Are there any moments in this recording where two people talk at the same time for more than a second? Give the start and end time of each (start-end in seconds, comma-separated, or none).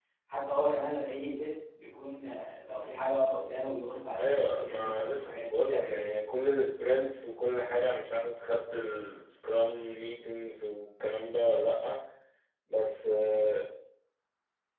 4.2-6.1